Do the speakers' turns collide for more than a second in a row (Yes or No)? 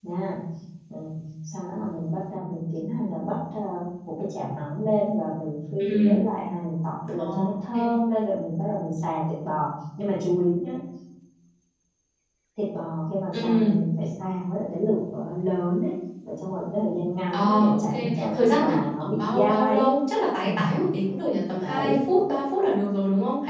Yes